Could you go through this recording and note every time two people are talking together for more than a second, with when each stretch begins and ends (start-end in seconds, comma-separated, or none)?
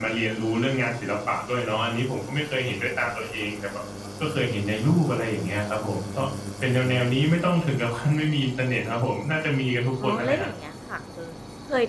none